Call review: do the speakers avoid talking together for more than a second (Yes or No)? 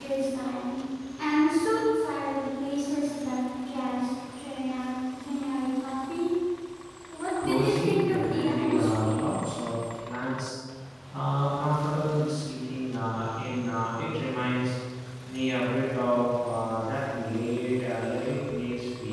No